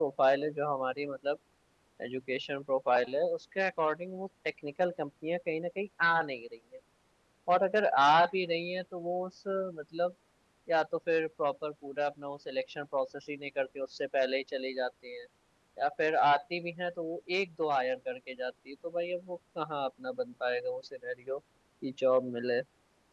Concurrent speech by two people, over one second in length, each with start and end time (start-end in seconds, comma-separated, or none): none